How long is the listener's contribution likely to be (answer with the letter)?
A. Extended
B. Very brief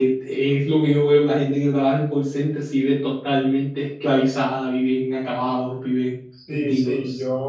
A